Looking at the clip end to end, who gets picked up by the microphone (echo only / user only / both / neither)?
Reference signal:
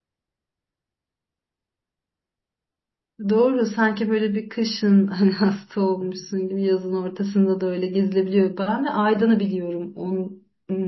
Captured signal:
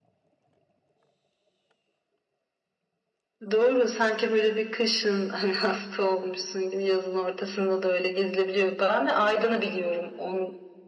echo only